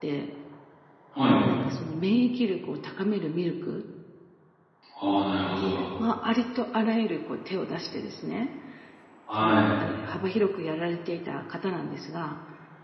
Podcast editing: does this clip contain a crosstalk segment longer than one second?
No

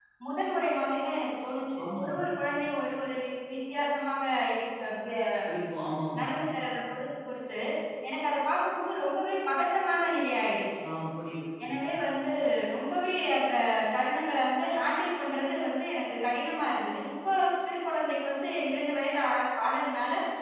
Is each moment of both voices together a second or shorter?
Yes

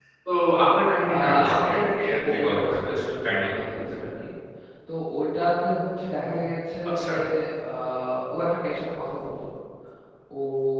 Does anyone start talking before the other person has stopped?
Yes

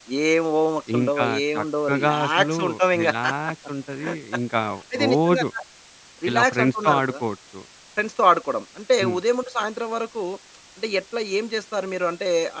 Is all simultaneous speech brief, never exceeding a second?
No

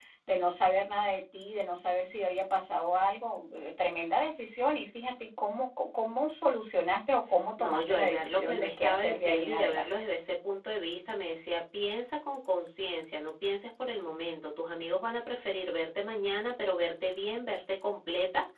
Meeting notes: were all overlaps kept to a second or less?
No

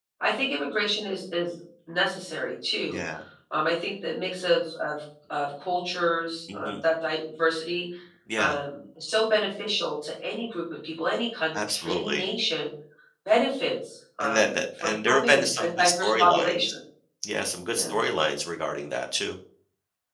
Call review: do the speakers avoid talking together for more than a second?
No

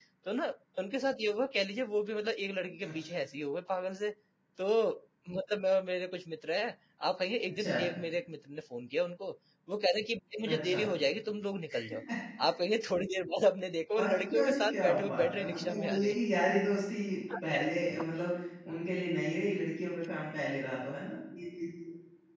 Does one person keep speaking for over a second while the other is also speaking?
Yes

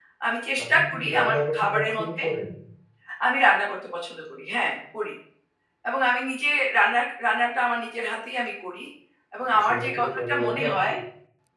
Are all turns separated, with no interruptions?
No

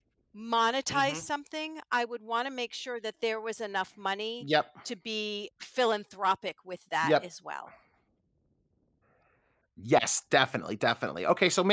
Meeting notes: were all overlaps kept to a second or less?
Yes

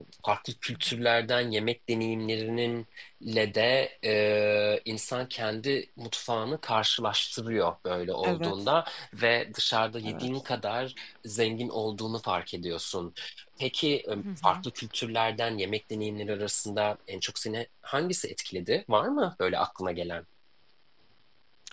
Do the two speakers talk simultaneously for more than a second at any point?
No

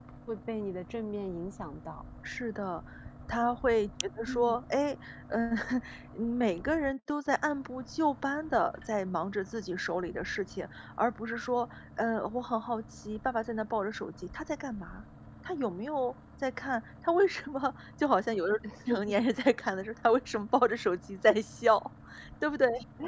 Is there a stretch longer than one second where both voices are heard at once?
No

